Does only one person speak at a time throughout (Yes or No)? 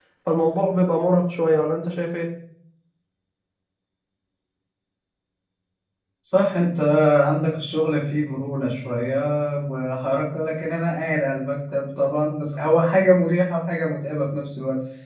Yes